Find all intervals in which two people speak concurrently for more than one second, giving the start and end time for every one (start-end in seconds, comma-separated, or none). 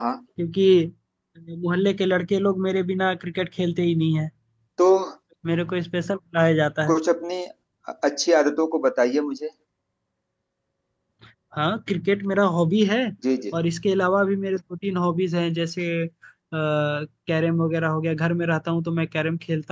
none